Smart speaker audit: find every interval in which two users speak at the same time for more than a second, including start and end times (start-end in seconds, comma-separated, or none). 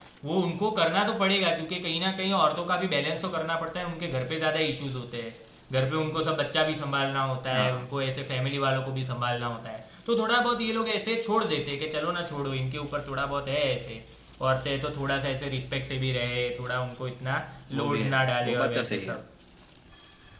17.8-19.2